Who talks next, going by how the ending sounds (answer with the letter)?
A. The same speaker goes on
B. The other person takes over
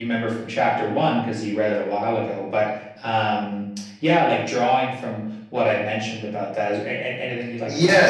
B